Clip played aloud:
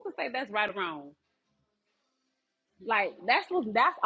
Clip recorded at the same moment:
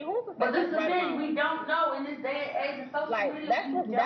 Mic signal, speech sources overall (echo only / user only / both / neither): both